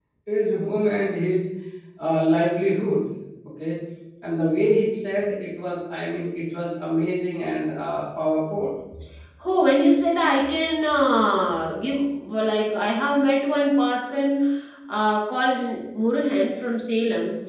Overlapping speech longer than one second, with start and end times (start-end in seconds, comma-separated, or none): none